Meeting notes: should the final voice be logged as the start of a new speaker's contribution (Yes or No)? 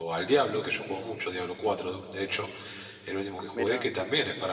No